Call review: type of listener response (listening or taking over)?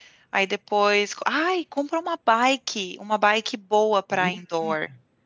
listening